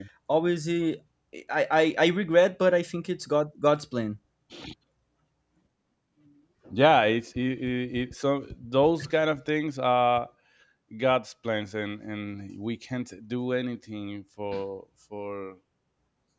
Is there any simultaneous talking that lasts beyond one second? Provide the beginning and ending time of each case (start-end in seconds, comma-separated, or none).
none